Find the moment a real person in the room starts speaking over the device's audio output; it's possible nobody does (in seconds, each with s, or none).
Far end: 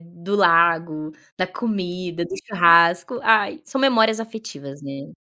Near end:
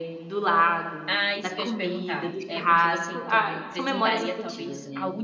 1.1 s